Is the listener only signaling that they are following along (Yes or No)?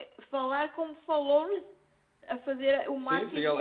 No